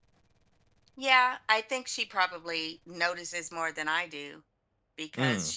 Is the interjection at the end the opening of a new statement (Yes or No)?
No